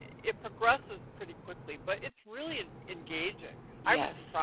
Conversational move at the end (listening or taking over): taking over